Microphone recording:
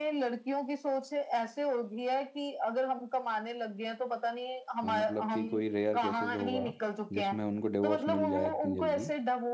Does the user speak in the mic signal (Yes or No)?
Yes